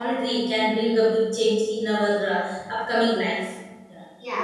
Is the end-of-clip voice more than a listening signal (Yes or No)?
Yes